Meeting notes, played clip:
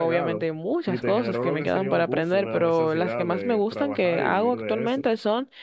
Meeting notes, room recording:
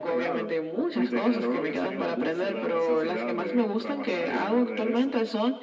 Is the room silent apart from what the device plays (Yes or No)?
Yes